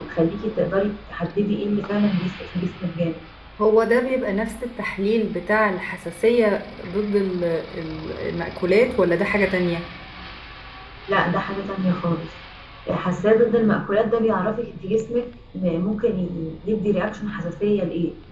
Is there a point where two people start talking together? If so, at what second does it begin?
none

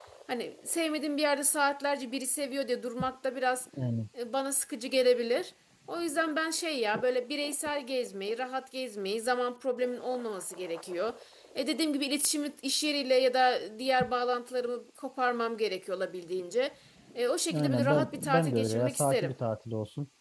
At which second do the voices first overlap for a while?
17.5 s

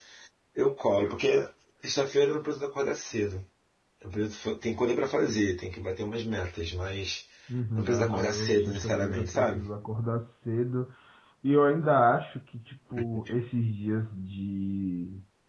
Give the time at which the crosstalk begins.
7.8 s

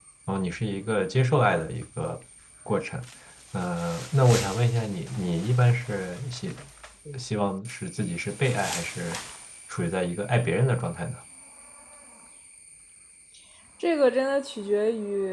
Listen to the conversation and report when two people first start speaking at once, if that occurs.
none

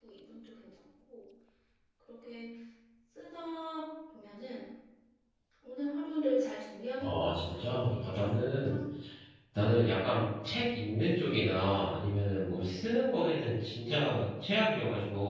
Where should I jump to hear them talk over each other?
7.0 s

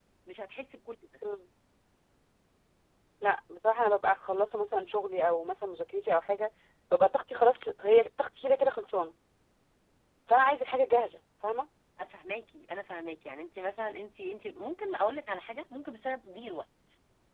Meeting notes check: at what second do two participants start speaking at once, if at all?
none

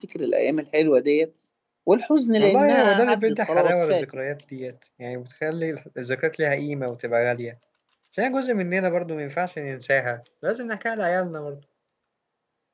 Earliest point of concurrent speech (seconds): 2.4 s

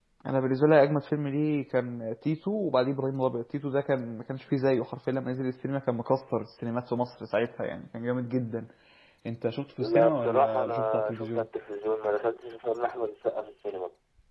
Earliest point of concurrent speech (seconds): 9.8 s

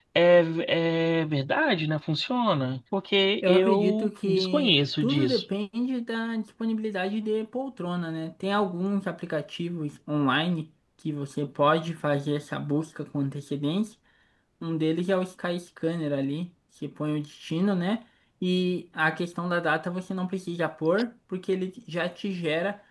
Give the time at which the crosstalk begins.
3.4 s

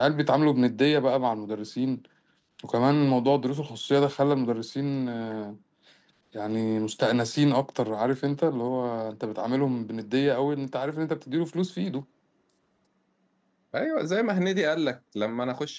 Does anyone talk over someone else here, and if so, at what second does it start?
none

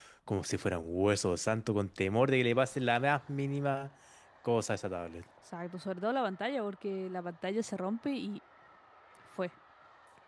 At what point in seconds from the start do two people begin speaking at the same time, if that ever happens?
none

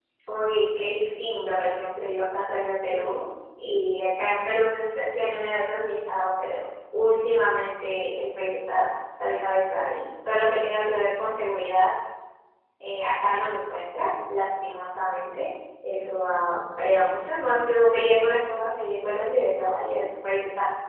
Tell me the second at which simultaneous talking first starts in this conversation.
none

